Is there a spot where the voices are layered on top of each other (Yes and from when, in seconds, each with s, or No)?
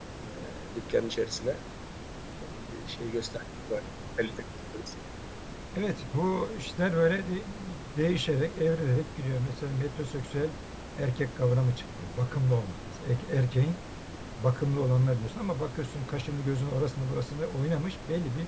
No